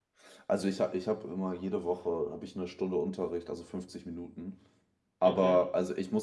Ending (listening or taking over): listening